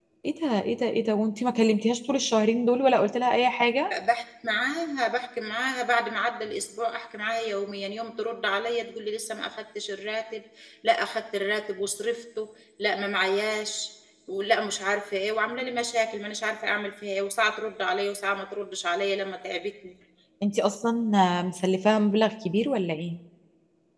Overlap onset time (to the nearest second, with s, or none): none